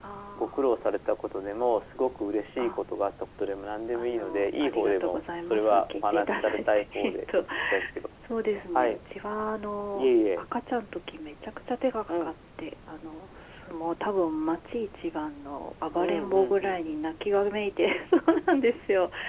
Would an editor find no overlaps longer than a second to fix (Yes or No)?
No